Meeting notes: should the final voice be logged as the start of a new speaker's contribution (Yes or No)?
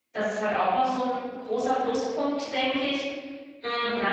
Yes